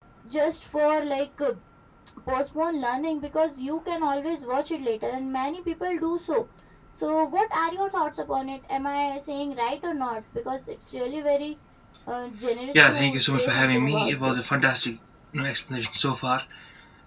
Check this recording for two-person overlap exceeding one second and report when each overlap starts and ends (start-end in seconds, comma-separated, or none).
12.7-14.5